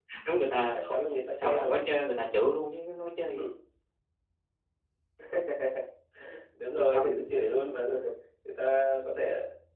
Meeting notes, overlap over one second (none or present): present